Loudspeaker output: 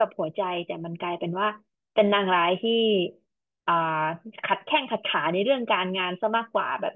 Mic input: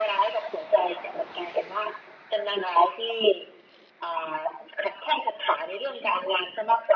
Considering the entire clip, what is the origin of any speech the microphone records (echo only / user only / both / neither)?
echo only